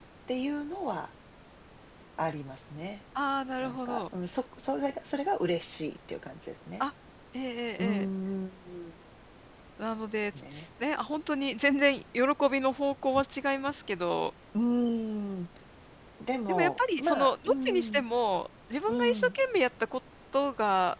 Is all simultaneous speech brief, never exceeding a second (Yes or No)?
No